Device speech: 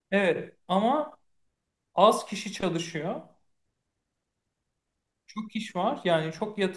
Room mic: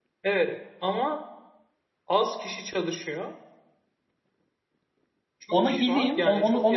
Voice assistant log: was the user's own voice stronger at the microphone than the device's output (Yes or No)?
Yes